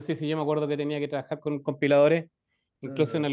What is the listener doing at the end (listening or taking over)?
listening